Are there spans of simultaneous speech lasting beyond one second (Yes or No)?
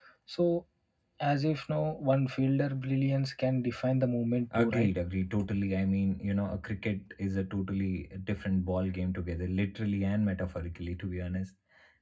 No